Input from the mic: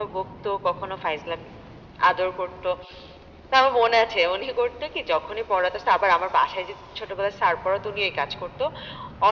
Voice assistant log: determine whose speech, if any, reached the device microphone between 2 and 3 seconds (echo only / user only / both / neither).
echo only